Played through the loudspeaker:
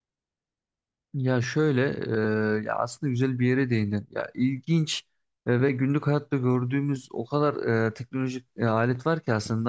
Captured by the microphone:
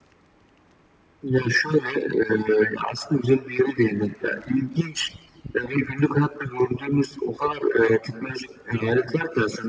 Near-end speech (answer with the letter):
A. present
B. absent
B